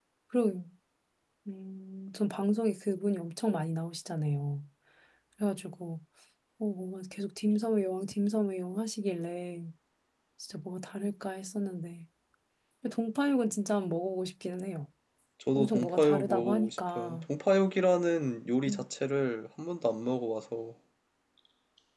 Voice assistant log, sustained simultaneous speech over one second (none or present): present